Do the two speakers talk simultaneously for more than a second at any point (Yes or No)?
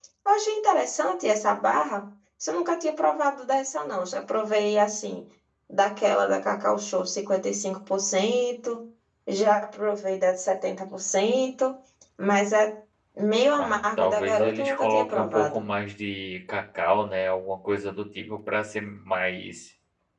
Yes